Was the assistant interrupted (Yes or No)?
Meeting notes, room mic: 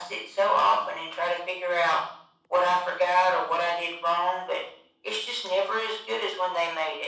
No